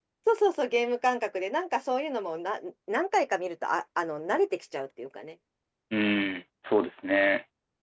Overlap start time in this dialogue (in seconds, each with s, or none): none